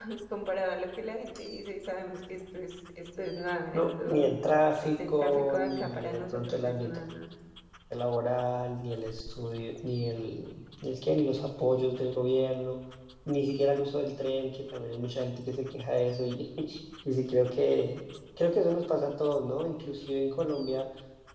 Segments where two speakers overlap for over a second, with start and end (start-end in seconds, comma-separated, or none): 4.8-7.0